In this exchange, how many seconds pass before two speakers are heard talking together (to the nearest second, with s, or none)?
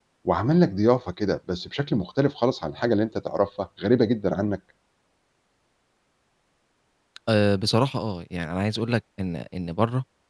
none